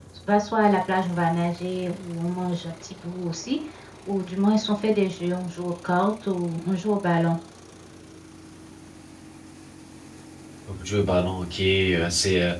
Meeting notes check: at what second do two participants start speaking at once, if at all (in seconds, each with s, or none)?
none